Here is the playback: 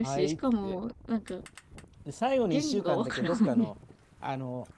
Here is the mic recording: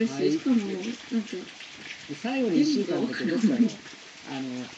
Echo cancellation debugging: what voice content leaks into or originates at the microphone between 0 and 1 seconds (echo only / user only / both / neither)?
echo only